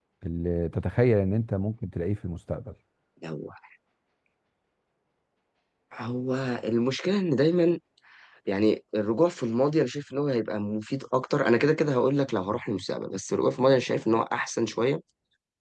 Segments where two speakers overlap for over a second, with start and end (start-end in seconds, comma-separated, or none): none